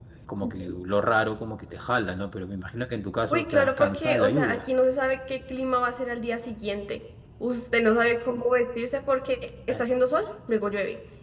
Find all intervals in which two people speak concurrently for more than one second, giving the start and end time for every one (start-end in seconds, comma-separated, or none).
3.3-4.6